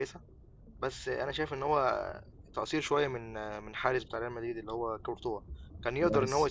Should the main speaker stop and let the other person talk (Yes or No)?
No